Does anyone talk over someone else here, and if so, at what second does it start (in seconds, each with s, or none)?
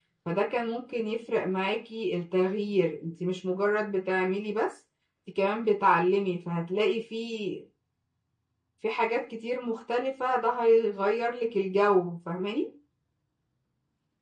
none